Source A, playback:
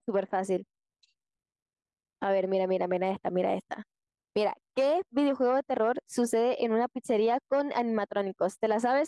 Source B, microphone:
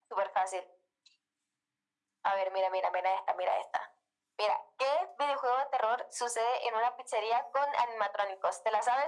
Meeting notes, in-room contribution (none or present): none